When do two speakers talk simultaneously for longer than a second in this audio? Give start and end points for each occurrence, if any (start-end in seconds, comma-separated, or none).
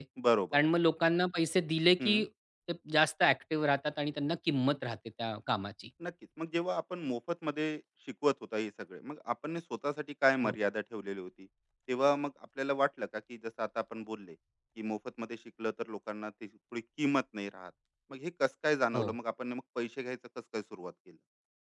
none